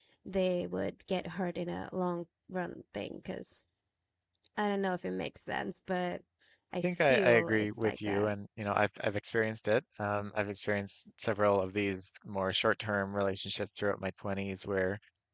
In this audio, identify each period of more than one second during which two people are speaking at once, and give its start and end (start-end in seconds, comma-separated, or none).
6.8-8.3